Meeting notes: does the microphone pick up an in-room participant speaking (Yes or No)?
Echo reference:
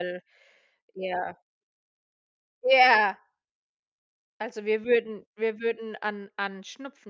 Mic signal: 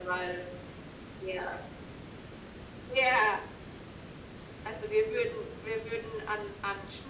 No